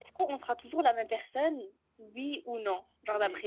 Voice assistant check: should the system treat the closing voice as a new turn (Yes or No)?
Yes